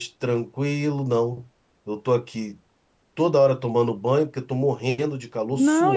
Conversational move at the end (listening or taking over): taking over